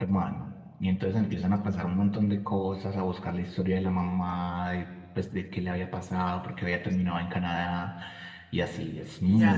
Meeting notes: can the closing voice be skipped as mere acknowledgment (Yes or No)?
No